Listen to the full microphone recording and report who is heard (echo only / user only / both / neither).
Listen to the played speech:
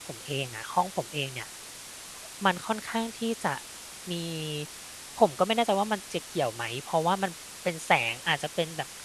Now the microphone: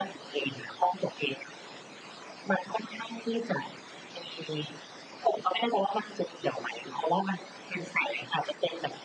echo only